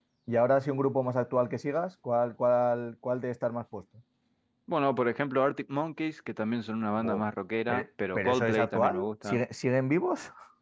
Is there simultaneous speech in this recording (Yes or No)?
Yes